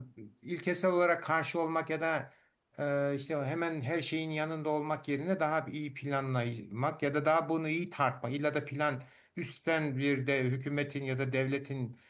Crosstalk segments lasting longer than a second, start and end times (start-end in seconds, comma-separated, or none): none